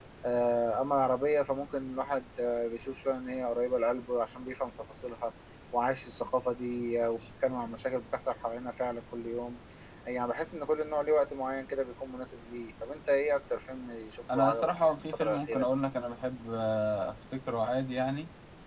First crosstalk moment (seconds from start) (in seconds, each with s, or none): 14.3 s